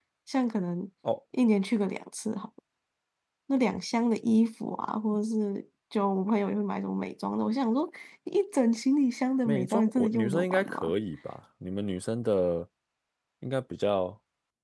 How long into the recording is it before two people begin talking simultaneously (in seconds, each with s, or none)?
9.5 s